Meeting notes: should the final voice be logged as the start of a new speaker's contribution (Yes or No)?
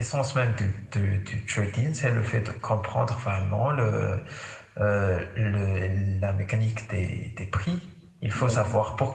No